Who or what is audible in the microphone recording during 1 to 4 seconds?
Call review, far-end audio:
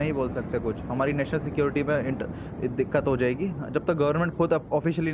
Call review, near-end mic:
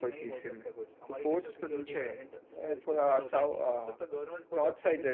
both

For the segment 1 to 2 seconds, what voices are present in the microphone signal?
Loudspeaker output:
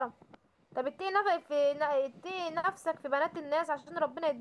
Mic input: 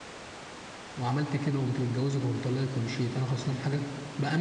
user only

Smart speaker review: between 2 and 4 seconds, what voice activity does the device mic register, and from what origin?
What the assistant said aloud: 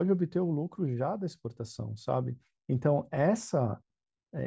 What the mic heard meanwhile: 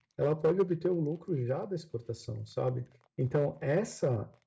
echo only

